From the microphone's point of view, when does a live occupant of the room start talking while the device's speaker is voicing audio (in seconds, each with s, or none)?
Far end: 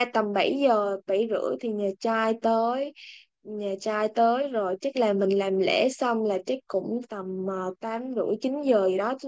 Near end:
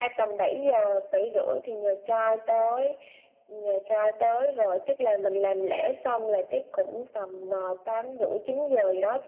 none